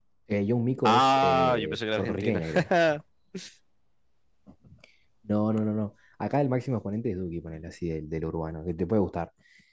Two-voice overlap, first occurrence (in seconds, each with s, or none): 0.8 s